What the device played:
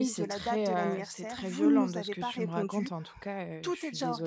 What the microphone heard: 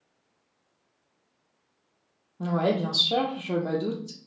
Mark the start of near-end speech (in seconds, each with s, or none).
2.4 s